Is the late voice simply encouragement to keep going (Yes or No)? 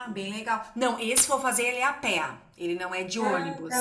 Yes